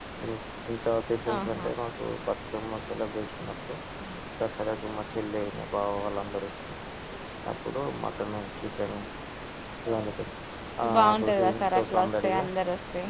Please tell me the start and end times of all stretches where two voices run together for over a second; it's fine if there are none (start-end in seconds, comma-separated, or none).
11.0-12.3